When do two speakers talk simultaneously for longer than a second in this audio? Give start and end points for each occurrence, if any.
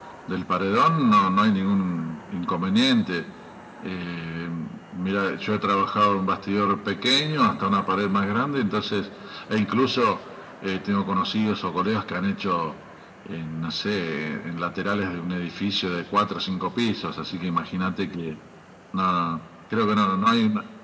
none

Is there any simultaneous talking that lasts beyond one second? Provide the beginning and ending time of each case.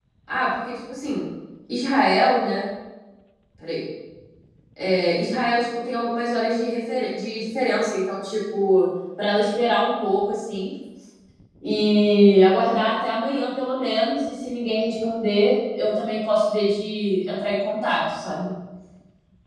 none

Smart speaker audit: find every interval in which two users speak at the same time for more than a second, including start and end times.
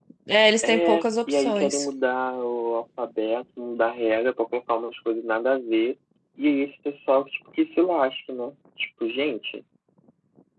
0.6-1.9

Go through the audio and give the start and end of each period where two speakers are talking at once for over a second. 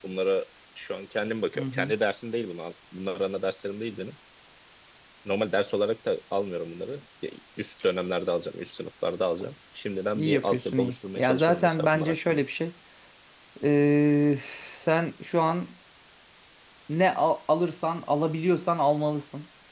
10.2-12.4

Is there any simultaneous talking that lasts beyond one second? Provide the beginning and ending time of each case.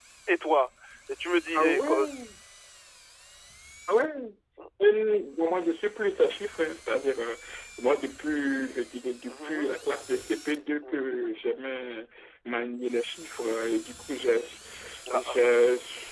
none

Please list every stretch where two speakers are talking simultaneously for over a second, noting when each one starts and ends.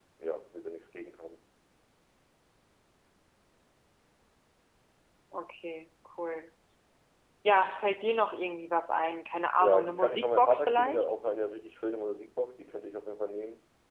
9.6-11.1

